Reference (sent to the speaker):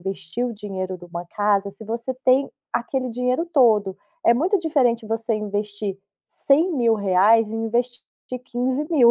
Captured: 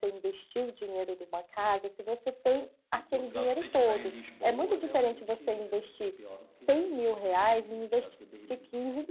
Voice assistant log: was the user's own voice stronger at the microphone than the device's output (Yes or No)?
No